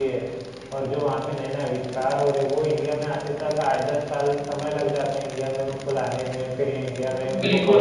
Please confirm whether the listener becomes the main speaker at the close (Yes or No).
Yes